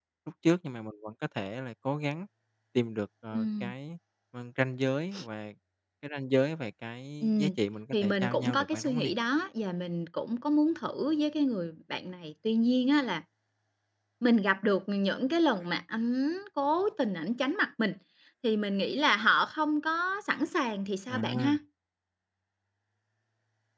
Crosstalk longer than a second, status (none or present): present